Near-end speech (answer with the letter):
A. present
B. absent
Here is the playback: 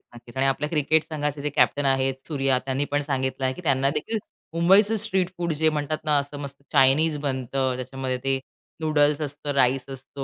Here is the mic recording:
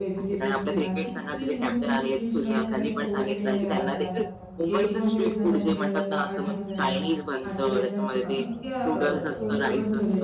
A